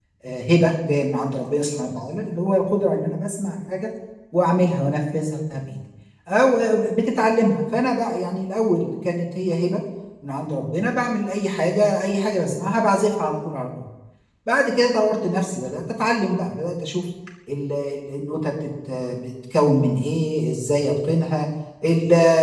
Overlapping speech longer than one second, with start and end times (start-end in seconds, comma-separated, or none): none